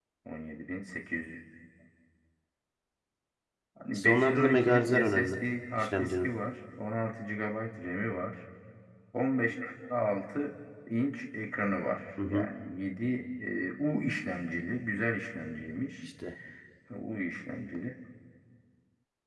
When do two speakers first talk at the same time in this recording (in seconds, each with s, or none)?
3.9 s